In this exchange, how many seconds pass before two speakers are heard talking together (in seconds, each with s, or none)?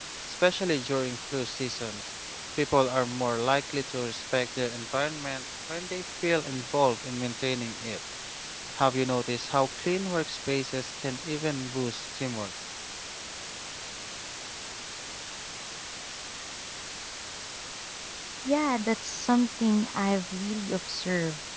none